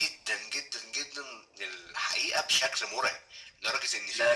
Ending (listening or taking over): taking over